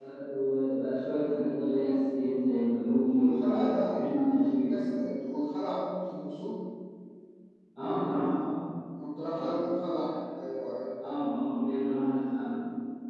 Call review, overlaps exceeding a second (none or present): present